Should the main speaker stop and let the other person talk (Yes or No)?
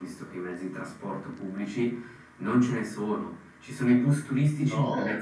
No